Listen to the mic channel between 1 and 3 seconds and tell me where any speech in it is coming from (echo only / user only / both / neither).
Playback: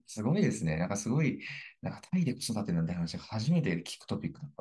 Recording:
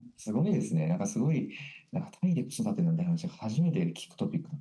echo only